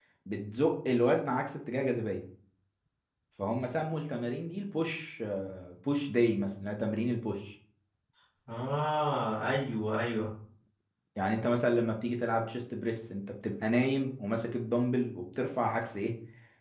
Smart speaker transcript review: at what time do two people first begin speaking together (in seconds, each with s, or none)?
none